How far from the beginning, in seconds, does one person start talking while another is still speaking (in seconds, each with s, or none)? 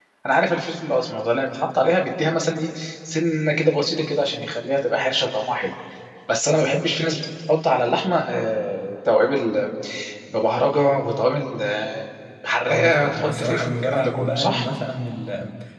12.7 s